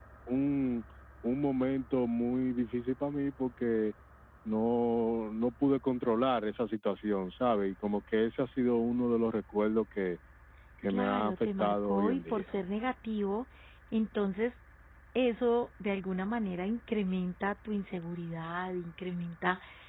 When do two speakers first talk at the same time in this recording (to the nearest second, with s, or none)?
11 s